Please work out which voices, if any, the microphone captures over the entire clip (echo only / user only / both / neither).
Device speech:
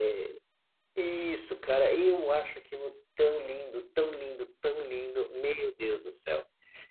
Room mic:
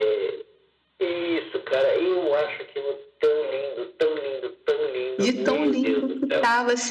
both